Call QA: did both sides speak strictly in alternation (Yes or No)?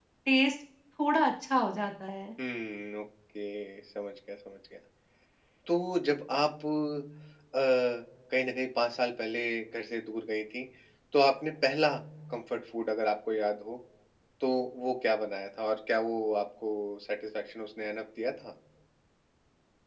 Yes